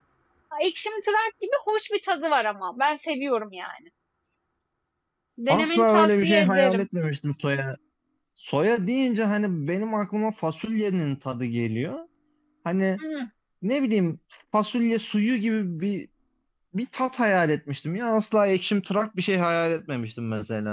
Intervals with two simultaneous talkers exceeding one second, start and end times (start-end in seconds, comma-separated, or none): 5.5-6.9